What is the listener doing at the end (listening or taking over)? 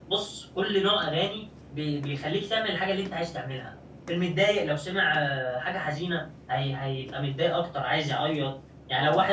listening